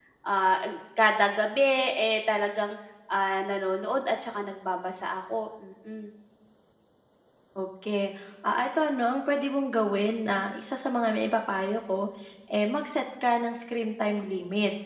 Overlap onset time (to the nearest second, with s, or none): none